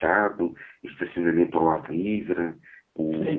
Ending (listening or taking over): taking over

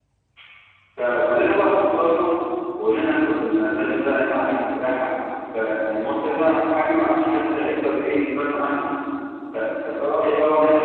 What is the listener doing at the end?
listening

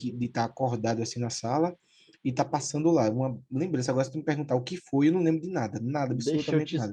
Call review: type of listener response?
taking over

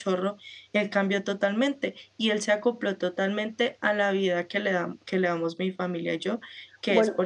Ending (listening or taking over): listening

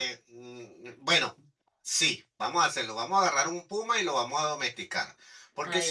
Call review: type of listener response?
listening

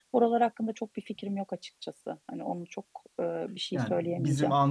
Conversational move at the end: taking over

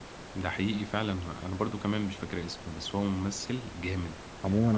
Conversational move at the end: taking over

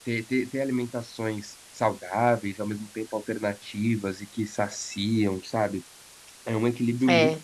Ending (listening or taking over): listening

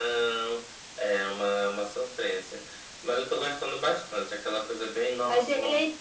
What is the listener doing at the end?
taking over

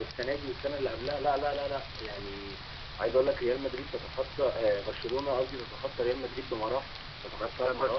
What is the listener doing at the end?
taking over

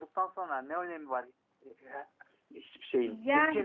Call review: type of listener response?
taking over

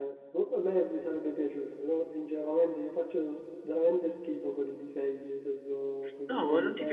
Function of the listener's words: taking over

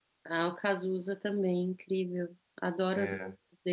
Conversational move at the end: taking over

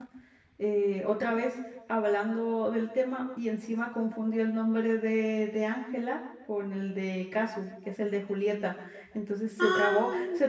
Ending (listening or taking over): listening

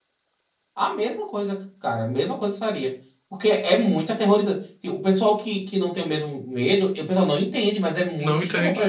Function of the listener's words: taking over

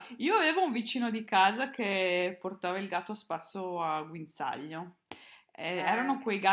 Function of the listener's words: listening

